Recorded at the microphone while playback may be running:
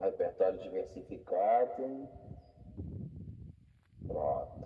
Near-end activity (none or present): none